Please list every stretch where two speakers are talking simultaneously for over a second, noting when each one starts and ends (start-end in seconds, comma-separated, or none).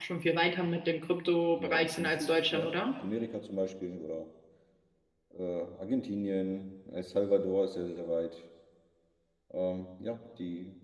1.6-2.8